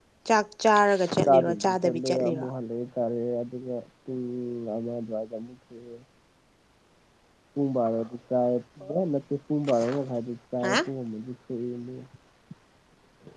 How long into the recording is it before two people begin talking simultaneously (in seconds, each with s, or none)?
1.1 s